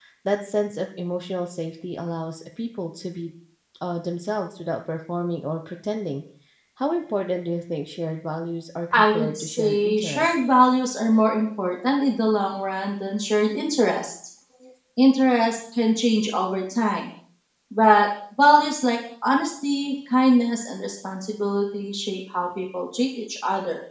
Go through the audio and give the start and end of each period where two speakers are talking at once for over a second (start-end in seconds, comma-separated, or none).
8.9-10.4